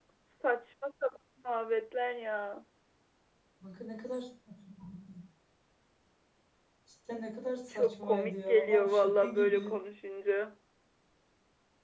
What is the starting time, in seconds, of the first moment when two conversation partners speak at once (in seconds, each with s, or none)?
7.8 s